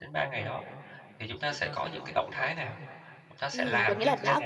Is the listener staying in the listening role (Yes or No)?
No